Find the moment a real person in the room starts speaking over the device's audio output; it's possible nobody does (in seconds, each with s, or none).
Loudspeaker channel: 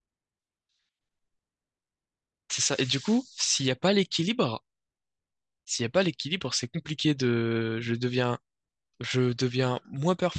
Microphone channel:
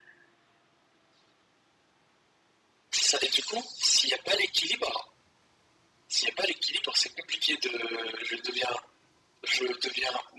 none